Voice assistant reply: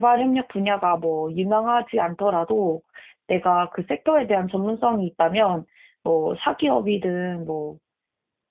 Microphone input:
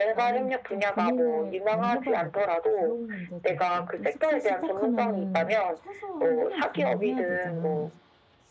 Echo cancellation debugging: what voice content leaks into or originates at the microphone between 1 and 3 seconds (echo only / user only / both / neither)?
both